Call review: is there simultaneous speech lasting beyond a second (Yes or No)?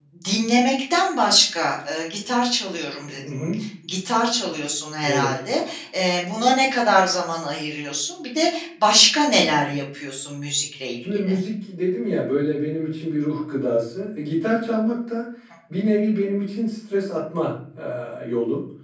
No